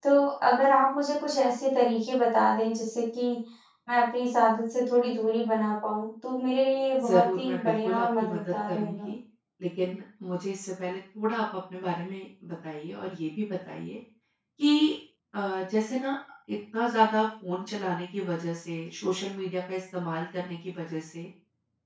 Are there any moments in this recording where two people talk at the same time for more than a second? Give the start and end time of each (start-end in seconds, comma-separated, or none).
7.0-9.1